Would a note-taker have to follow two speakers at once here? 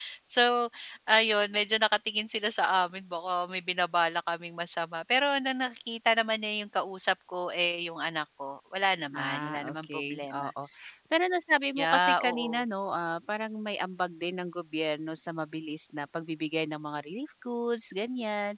Yes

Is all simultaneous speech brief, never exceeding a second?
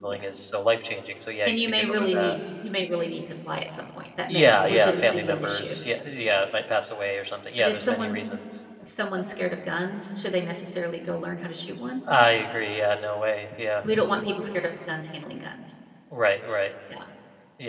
No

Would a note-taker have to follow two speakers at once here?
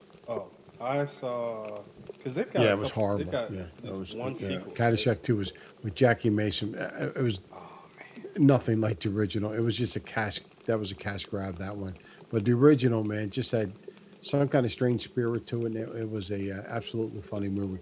Yes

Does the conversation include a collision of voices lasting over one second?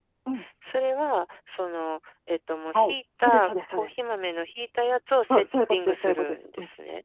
Yes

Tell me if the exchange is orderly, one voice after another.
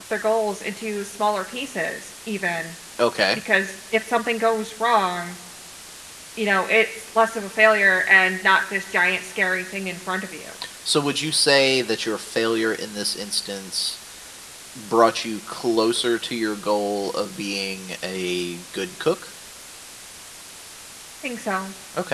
Yes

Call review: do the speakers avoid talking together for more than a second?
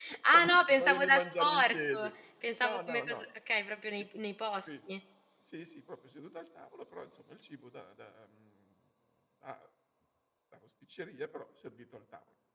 No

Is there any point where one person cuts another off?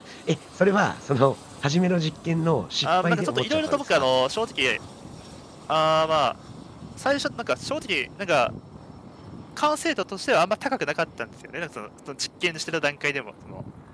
Yes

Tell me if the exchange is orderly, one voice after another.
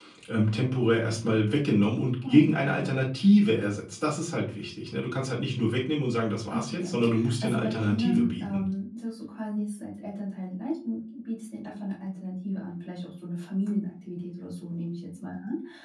No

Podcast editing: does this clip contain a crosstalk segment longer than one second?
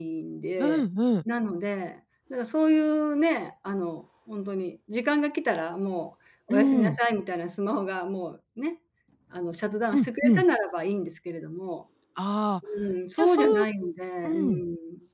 No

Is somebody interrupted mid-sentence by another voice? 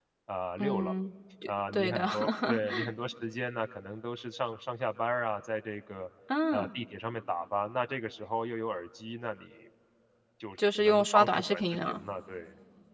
Yes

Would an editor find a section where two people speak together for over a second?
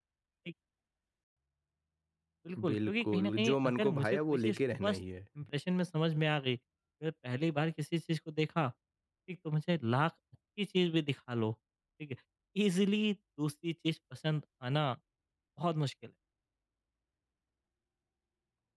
Yes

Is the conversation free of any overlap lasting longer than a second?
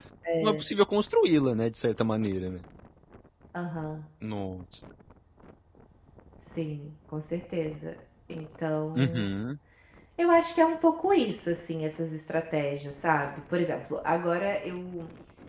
Yes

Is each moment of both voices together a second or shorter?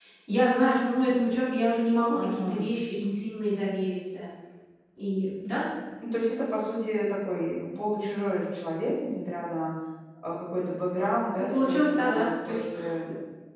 No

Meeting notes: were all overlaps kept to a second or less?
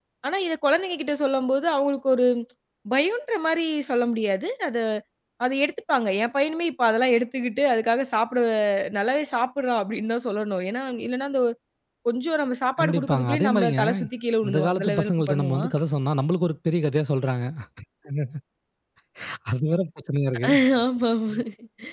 No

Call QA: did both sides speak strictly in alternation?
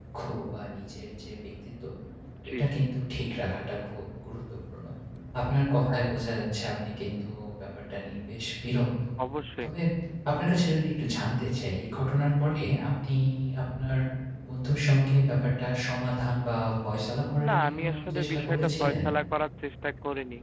No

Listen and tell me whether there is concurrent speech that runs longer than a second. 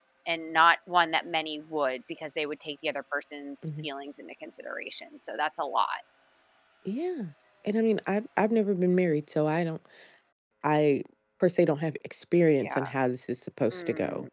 No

